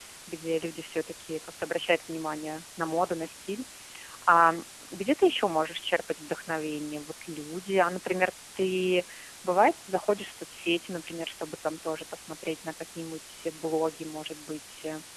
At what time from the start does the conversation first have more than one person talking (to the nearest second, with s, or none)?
none